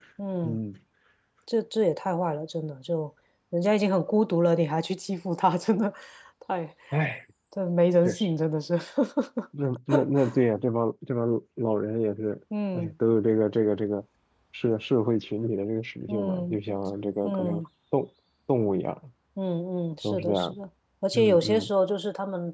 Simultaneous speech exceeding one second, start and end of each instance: none

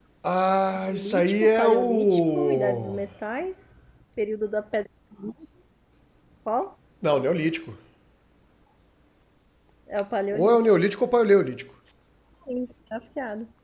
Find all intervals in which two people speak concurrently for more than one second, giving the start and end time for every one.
0.8-3.0

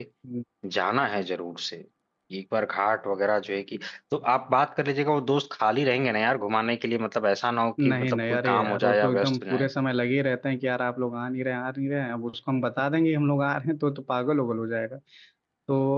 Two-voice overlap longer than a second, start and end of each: 7.8-9.7

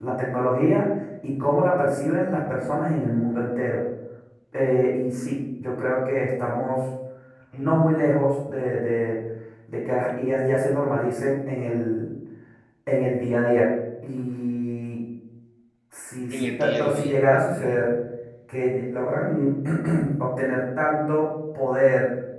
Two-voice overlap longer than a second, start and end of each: 16.3-17.8

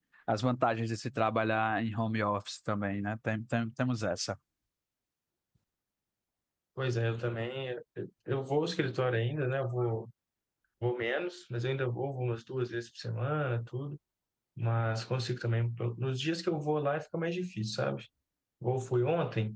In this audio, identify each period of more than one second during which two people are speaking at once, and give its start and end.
none

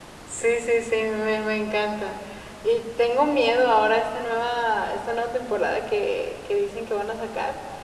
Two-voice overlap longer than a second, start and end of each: none

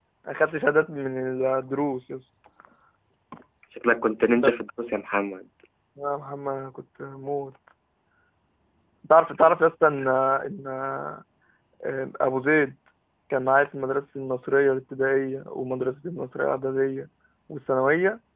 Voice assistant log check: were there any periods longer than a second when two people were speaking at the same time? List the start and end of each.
none

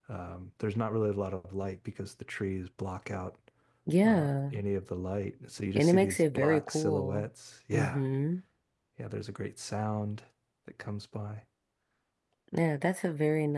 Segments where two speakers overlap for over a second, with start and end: 5.8-7.3

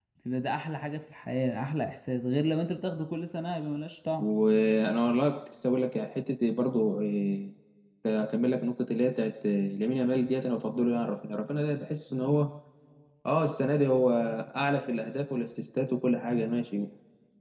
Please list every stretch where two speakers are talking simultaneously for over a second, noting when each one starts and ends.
none

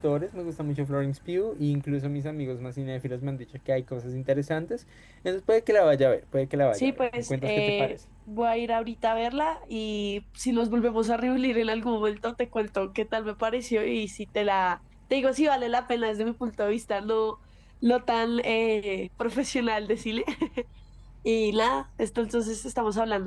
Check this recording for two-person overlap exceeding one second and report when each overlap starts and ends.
6.7-8.0

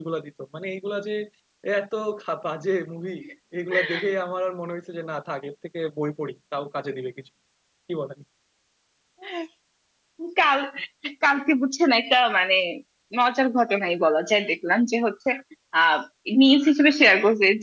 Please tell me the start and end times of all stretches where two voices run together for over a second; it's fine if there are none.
none

